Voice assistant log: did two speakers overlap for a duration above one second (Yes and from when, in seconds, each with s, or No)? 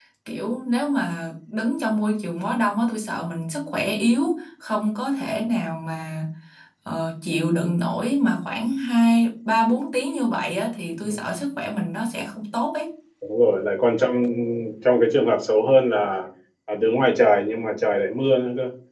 No